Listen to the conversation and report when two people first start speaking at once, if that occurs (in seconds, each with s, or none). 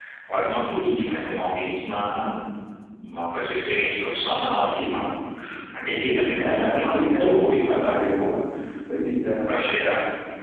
6.3 s